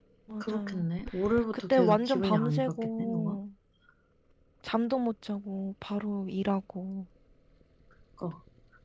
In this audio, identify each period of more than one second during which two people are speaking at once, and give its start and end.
1.7-3.4

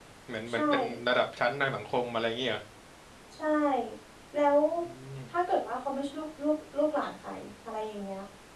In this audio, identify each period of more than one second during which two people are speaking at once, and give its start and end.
none

